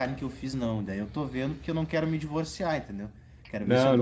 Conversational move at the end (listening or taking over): listening